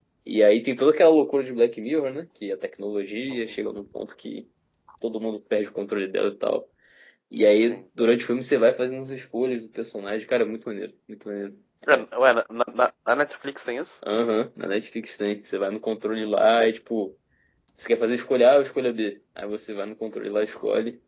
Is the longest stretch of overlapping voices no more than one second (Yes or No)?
Yes